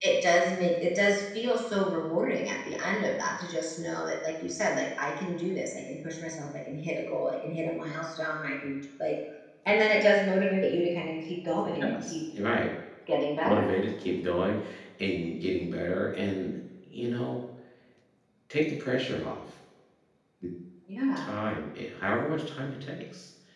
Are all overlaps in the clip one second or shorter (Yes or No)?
Yes